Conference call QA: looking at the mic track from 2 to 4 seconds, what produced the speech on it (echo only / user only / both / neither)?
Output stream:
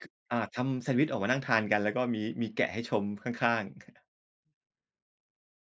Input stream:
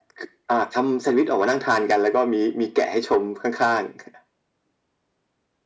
echo only